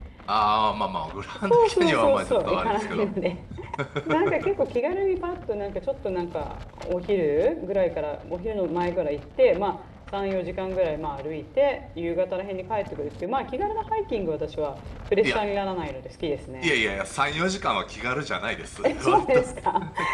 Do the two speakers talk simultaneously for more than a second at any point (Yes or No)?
Yes